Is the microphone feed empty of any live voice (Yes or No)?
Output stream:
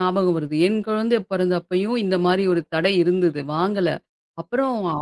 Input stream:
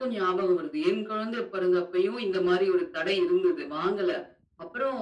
Yes